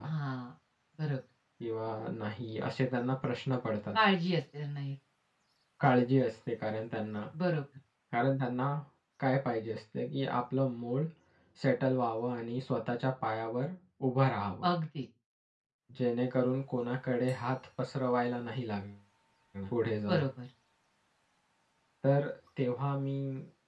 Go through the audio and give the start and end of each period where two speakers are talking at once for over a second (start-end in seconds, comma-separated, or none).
none